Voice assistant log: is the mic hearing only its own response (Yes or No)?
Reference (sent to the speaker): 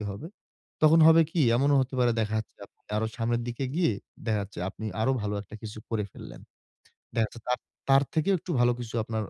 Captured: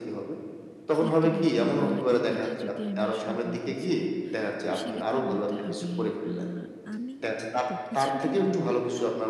No